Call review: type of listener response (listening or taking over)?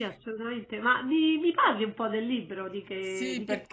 taking over